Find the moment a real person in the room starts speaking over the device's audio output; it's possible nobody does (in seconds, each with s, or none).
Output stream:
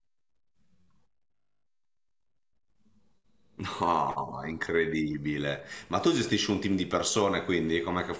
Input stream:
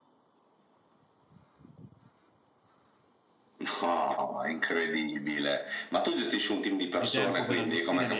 6.9 s